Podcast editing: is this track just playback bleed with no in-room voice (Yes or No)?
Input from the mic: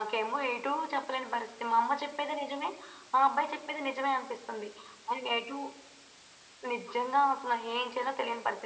Yes